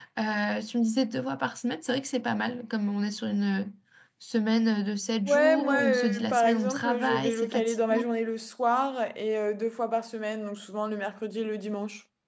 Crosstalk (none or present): present